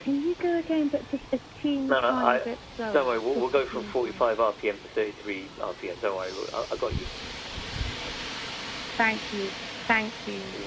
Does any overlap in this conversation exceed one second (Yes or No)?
Yes